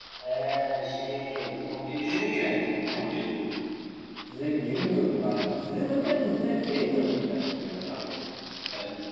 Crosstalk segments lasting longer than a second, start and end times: none

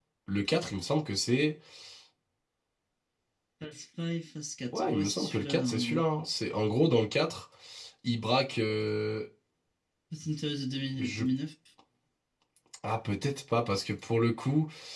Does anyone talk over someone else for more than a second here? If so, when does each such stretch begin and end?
4.7-6.0

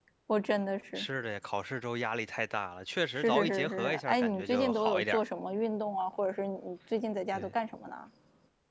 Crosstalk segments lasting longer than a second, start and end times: 3.1-5.2

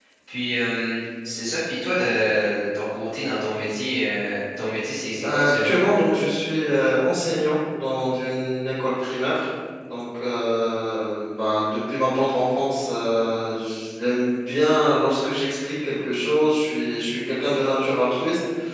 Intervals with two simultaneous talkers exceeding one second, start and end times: none

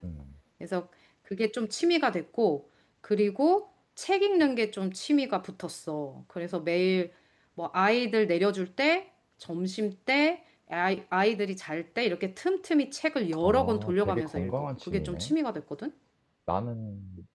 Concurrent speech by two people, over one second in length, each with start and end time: 13.4-15.3

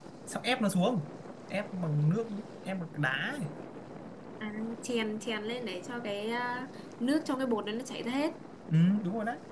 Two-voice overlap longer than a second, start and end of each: none

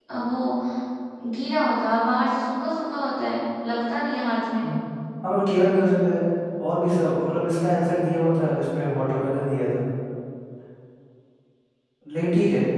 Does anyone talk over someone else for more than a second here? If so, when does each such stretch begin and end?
none

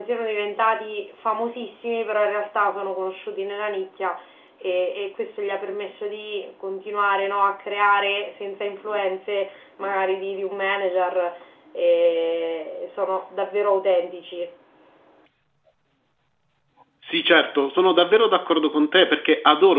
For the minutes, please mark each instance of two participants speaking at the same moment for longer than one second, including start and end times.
none

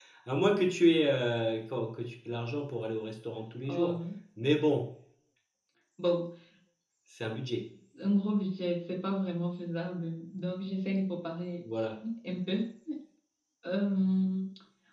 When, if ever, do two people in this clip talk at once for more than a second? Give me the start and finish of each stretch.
none

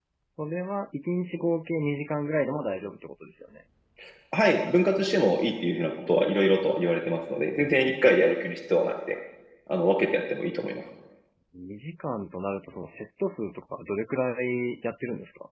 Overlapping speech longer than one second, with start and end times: none

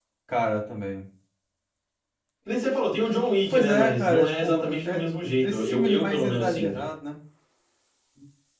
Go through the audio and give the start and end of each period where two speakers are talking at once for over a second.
3.5-5.0, 5.5-6.8

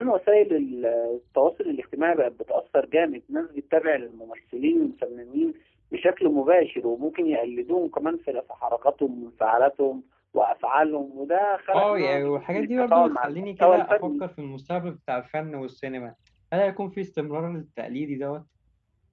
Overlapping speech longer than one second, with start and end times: 11.7-14.2

